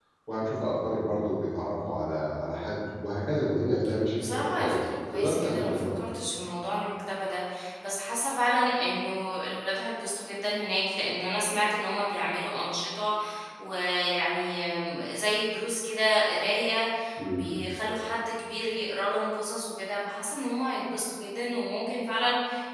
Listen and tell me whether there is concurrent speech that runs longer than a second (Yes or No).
Yes